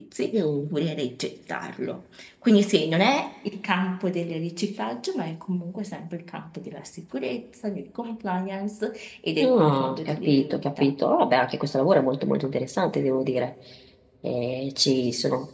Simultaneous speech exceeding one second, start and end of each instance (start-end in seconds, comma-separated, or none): 9.4-10.9